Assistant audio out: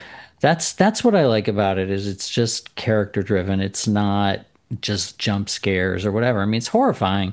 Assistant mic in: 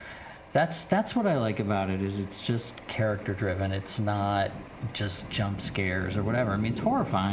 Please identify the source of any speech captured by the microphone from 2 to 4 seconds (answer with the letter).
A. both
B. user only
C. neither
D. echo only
D